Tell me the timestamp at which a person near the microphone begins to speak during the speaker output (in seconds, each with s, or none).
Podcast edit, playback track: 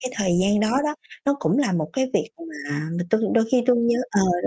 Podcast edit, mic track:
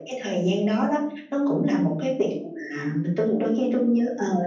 none